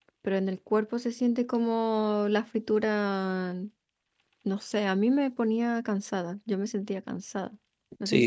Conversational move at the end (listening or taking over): taking over